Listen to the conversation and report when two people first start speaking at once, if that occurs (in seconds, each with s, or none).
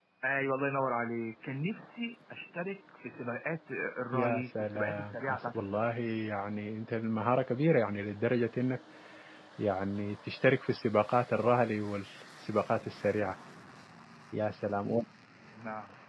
4.1 s